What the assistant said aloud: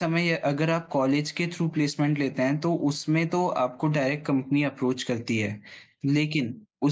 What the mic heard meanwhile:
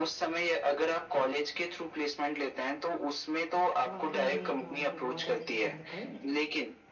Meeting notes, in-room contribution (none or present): present